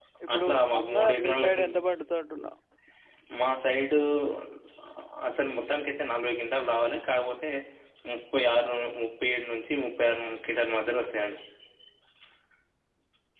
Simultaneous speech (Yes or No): Yes